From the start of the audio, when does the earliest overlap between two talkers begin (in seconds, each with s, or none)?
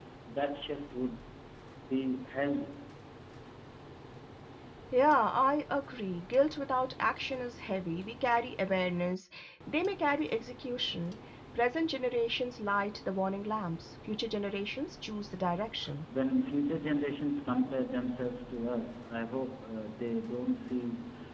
none